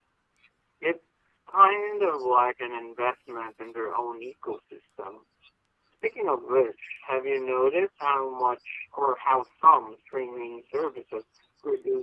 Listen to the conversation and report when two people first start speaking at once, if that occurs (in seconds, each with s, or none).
none